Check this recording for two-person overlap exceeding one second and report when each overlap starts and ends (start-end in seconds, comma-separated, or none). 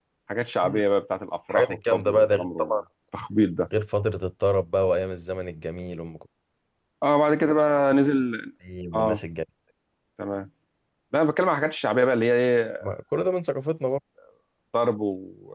1.5-2.8